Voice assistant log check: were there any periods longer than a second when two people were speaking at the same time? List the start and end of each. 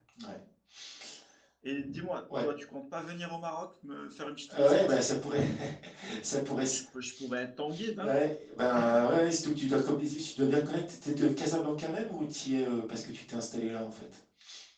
none

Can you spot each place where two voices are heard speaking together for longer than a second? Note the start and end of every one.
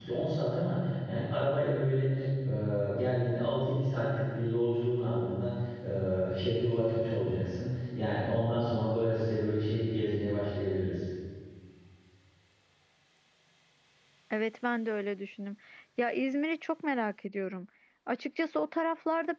none

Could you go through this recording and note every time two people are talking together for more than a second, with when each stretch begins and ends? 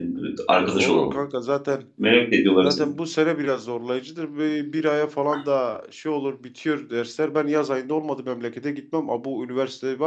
none

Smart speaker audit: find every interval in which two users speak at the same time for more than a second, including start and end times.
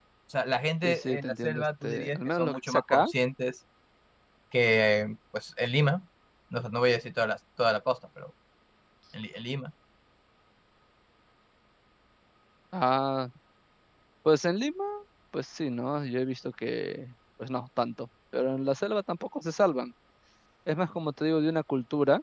0.8-3.1

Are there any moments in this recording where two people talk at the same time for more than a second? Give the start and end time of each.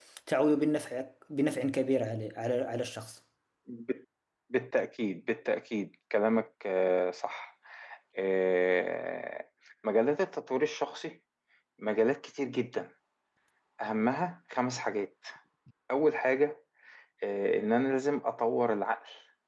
none

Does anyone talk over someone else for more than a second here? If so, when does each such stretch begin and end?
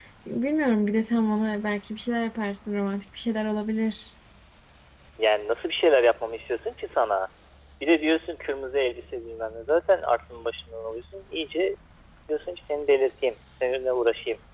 none

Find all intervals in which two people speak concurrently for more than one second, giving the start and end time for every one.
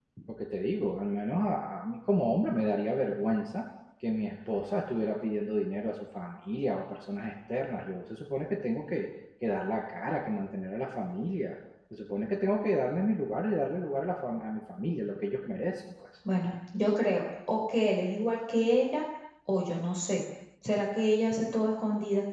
none

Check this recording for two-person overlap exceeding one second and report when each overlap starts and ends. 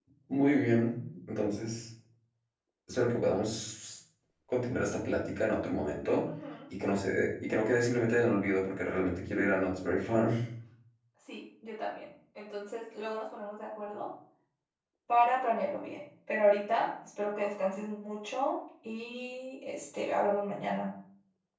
none

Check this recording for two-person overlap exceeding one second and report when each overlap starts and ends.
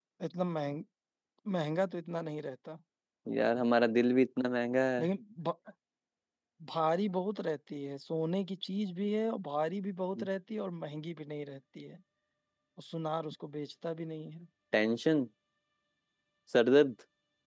none

